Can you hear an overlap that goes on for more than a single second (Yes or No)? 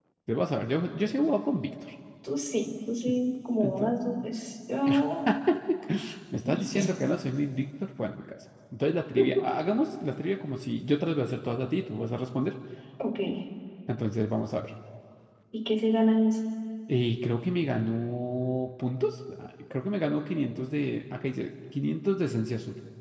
No